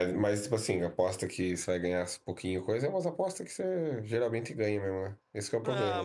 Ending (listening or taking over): taking over